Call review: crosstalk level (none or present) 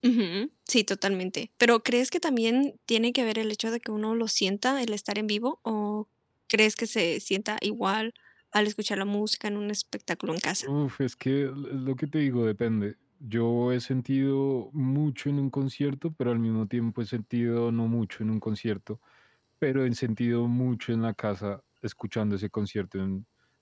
none